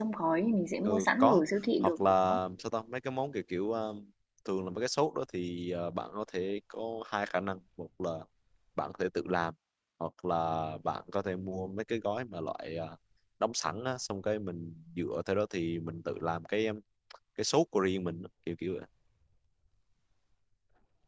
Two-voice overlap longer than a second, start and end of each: none

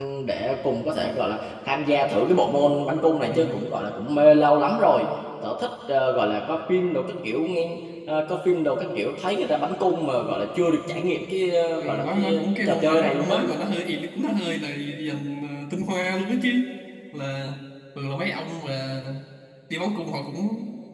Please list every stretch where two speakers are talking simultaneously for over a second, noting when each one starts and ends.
11.8-13.4

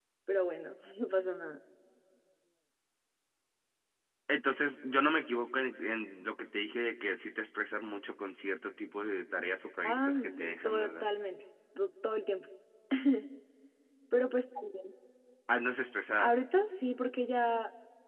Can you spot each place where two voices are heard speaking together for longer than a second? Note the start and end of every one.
9.8-11.1

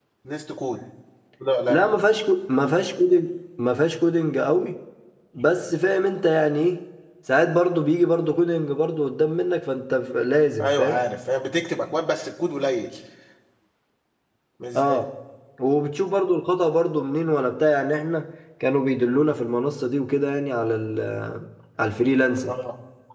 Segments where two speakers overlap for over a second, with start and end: none

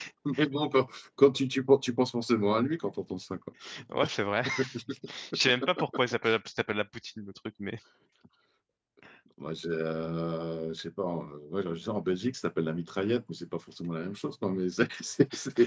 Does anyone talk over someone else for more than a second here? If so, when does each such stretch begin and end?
none

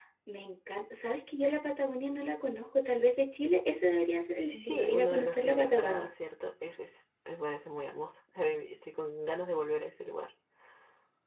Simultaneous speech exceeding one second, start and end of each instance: 4.4-6.1

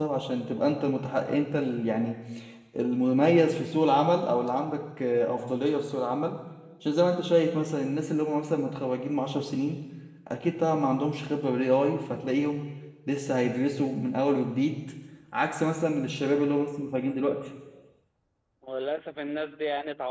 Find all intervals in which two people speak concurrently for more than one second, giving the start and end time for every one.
none

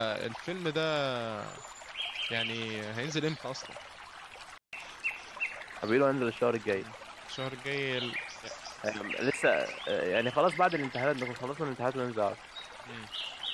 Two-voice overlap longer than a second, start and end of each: none

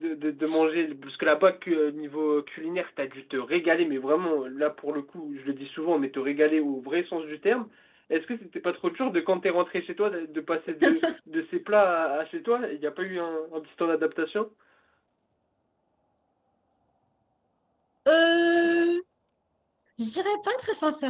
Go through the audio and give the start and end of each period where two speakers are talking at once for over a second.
none

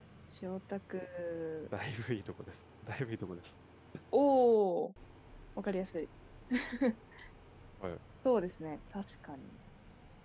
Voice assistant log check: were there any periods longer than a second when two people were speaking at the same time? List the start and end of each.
none

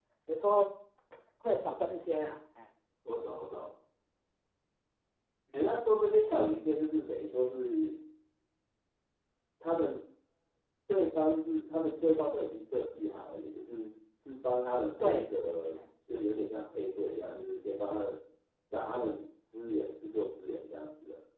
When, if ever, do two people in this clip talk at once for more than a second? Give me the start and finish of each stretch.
none

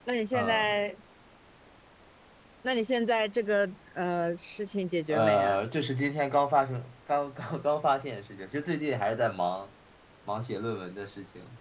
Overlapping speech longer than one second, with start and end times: none

